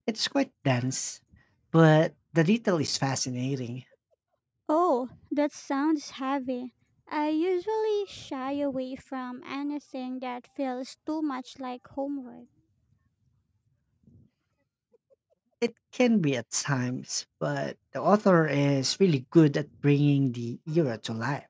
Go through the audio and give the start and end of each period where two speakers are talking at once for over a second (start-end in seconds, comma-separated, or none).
none